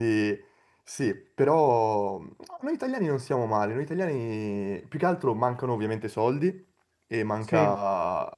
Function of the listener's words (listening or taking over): listening